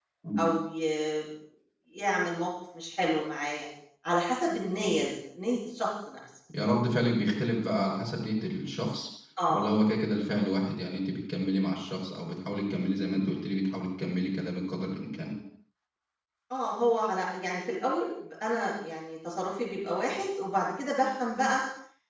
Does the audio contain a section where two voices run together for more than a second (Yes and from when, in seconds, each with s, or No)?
No